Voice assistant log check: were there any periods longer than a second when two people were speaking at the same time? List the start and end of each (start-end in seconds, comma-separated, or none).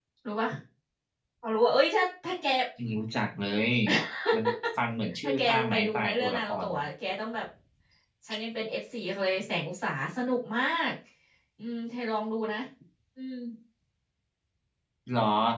5.2-6.7